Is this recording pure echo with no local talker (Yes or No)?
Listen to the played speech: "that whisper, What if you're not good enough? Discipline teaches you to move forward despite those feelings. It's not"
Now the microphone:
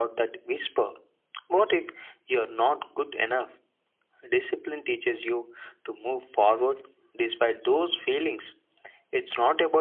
Yes